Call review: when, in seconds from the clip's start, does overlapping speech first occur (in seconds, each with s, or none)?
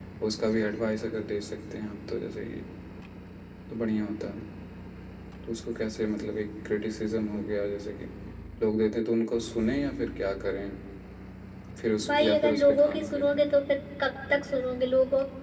12.1 s